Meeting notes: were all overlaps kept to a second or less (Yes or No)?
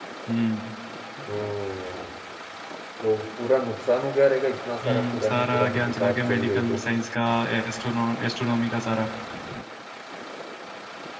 No